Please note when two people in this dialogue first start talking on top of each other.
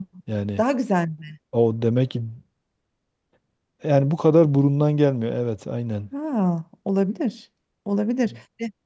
none

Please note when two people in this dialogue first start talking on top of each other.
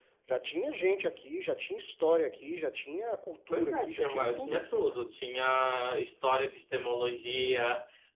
3.5 s

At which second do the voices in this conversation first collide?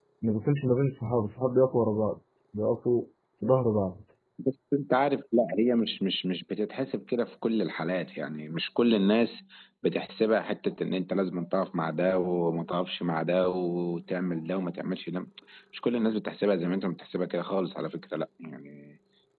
none

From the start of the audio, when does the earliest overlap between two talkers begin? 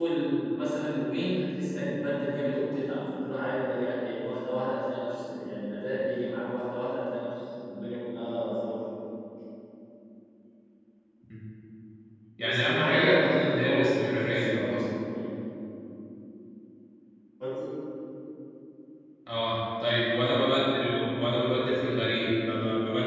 12.4 s

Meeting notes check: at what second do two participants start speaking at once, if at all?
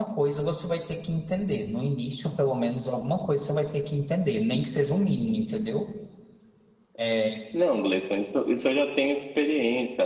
none

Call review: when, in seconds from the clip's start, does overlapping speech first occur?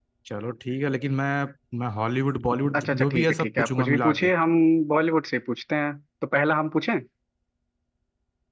2.6 s

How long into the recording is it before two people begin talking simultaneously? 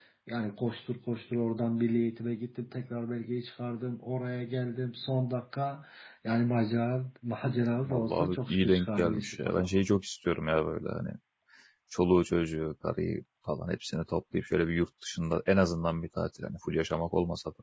7.8 s

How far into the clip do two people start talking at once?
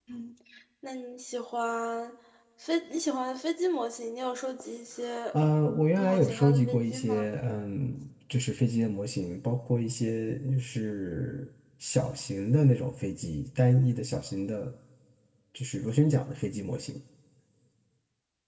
6.0 s

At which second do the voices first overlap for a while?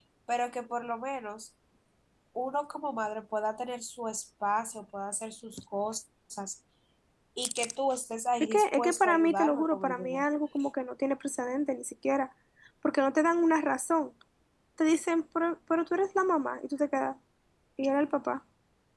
8.4 s

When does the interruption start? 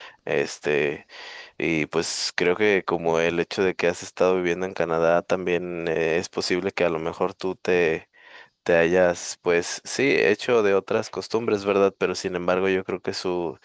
none

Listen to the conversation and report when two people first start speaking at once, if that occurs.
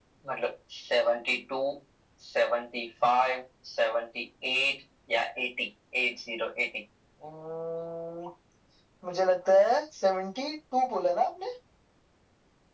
none

